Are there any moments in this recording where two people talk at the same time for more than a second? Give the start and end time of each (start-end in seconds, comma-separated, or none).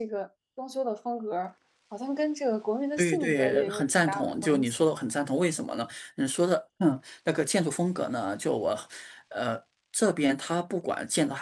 3.0-4.8